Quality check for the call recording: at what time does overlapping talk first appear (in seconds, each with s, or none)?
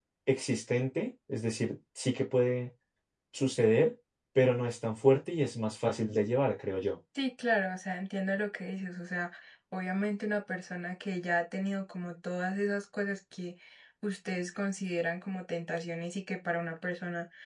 none